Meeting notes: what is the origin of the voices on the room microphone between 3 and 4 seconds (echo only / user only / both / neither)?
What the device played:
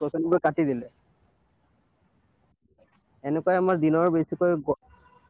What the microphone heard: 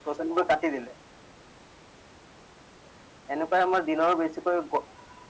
echo only